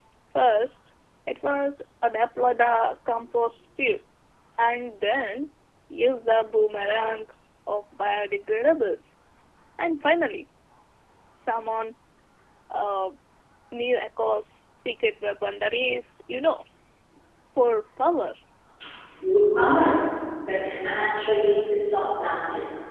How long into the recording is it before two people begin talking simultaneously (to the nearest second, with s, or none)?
none